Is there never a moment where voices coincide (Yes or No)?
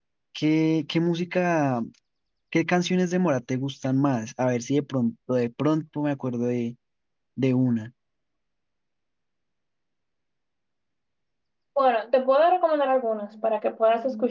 Yes